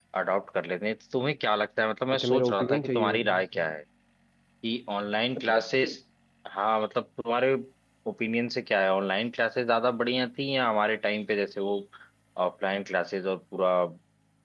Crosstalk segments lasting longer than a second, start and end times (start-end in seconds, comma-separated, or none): 2.2-3.6